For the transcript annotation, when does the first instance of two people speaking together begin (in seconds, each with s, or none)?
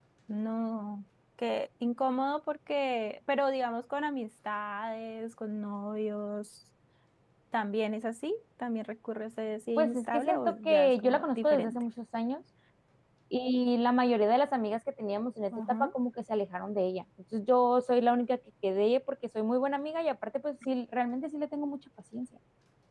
9.8 s